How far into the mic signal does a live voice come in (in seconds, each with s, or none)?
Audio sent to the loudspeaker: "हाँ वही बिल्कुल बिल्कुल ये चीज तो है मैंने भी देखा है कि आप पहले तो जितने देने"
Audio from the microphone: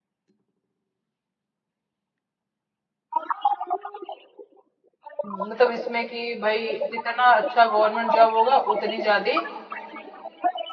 5.2 s